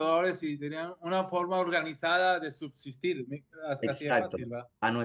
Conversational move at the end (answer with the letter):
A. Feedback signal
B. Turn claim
B